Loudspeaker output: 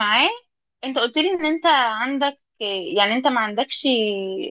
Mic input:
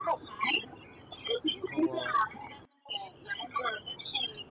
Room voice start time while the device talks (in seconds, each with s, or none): 1.6 s